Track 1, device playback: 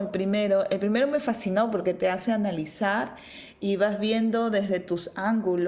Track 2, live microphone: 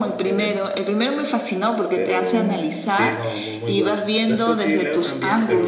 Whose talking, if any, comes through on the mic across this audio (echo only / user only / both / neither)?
both